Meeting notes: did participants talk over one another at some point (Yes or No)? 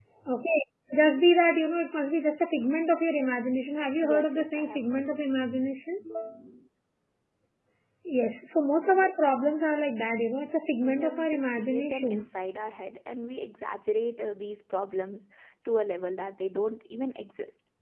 Yes